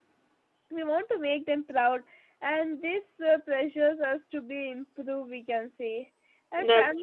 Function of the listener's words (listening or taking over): listening